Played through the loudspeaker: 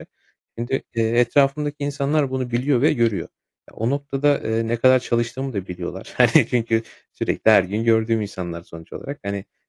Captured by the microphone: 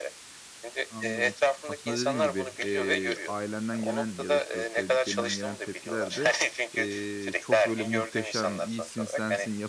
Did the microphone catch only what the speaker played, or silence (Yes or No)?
No